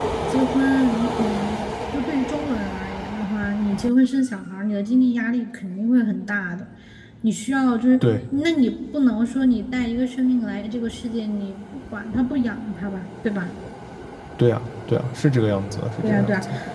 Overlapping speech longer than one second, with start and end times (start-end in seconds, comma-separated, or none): none